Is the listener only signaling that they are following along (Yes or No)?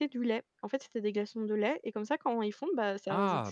No